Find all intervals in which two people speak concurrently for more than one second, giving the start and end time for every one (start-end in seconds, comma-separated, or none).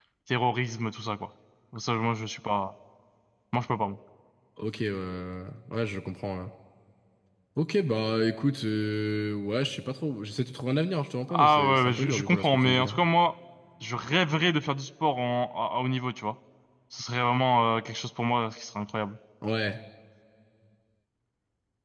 11.3-13.0